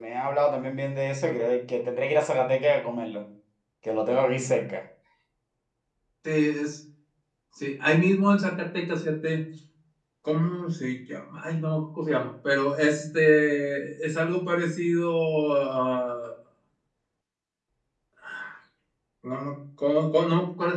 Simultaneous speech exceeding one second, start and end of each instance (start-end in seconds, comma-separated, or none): none